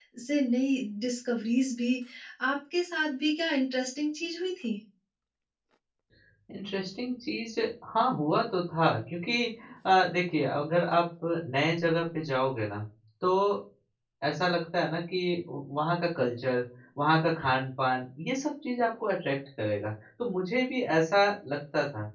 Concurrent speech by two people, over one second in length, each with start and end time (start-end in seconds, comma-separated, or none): none